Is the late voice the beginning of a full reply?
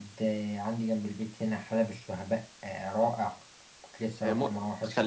Yes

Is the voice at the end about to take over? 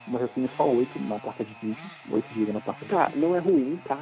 Yes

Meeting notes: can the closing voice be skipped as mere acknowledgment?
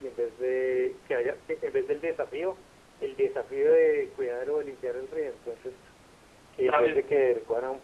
Yes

